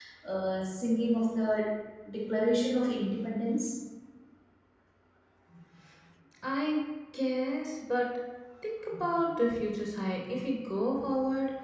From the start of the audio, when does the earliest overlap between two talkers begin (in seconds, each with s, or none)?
none